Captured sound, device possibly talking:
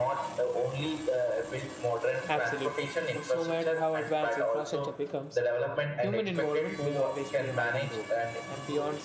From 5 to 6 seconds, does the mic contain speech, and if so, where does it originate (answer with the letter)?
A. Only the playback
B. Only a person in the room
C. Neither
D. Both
D